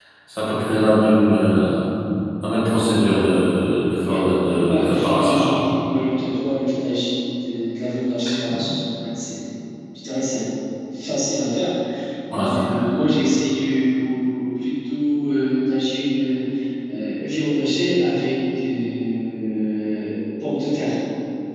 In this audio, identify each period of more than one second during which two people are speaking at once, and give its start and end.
4.0-5.6

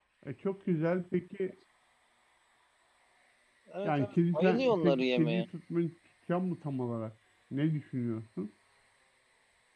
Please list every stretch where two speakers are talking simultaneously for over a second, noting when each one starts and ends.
3.8-5.5

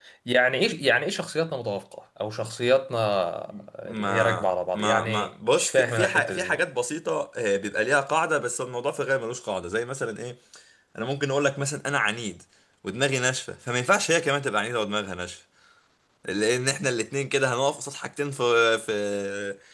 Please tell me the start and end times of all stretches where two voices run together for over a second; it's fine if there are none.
3.9-6.6

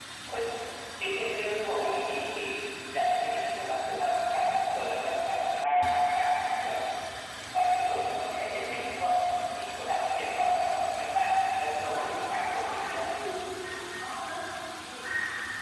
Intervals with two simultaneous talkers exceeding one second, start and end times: 11.8-13.0

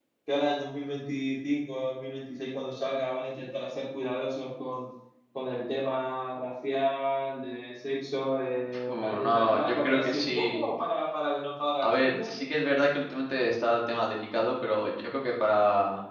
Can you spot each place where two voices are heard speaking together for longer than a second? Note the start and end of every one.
8.9-10.6

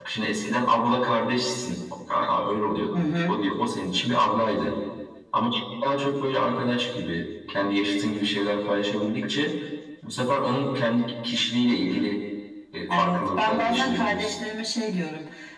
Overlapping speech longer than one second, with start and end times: 13.0-14.3

